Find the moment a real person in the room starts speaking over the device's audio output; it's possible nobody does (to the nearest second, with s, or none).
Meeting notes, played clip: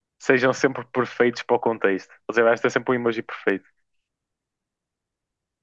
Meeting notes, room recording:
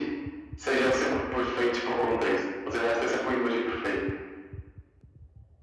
none